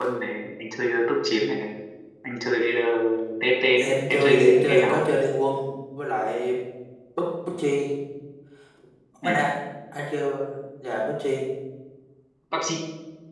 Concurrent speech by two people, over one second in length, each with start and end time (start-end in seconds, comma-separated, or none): 3.8-5.0